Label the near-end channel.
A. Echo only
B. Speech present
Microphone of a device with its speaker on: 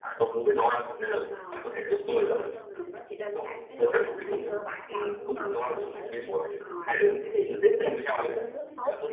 A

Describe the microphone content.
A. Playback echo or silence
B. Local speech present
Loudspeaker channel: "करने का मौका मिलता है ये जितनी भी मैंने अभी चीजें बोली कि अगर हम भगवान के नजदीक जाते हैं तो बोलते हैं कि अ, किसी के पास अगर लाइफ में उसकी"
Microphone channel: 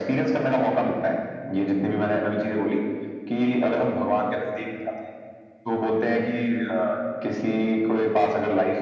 A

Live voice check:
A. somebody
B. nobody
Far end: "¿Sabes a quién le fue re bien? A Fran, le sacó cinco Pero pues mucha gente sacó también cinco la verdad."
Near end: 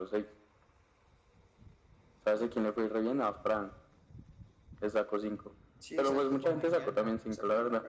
A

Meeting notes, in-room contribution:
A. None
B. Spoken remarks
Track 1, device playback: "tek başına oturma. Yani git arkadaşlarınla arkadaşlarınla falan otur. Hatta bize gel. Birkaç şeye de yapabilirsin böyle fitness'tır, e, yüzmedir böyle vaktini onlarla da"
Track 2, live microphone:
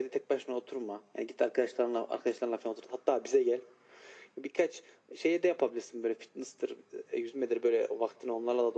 A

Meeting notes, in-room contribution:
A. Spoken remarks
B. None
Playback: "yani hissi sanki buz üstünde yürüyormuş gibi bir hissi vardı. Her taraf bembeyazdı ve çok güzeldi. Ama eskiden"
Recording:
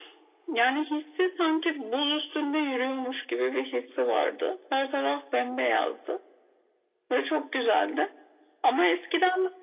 B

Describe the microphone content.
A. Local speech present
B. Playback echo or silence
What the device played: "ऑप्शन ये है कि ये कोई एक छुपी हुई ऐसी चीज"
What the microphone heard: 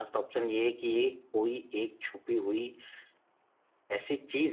B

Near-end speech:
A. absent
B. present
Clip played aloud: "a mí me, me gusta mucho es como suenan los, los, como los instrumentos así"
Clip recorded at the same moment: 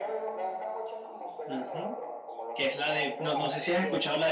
B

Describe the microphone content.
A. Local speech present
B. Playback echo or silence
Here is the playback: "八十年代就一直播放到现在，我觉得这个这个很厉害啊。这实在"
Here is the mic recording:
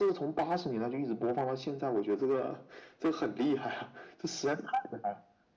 B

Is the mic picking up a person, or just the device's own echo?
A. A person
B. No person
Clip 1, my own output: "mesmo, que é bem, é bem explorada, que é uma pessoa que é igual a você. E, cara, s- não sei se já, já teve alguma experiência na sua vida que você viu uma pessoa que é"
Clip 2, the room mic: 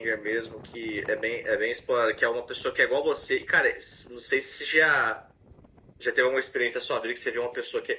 B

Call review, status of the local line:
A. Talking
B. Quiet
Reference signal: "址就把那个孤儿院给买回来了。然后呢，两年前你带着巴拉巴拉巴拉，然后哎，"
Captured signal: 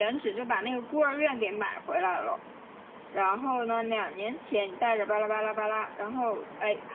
B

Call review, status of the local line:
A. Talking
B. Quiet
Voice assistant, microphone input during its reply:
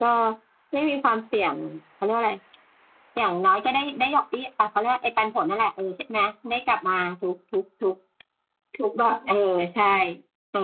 B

